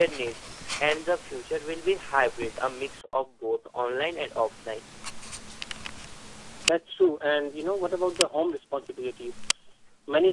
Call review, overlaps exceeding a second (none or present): none